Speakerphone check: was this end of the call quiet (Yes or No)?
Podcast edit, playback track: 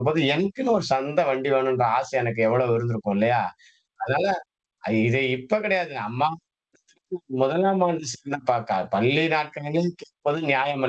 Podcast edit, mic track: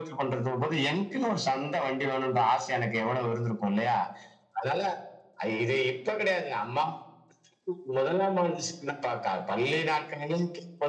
Yes